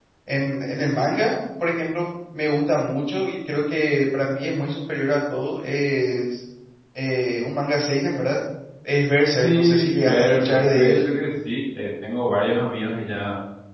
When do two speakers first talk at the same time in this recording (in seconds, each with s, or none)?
9.4 s